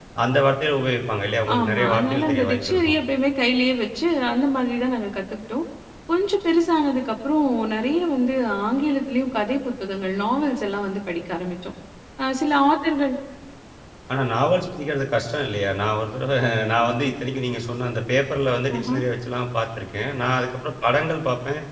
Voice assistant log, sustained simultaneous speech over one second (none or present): present